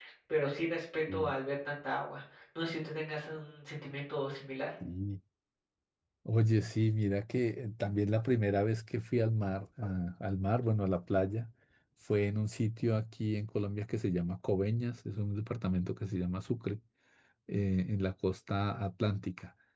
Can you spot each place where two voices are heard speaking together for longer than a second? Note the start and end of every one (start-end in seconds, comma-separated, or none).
none